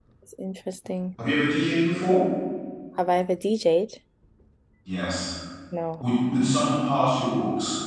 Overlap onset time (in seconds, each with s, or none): none